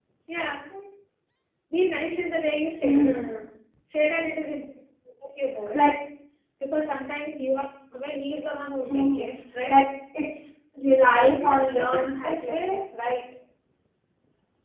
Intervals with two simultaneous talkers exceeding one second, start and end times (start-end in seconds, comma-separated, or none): 11.1-12.8